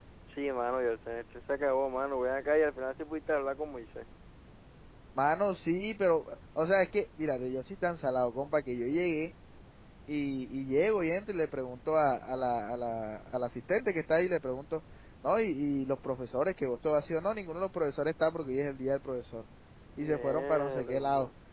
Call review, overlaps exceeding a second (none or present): present